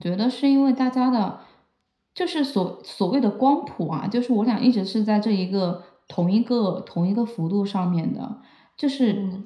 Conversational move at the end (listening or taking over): listening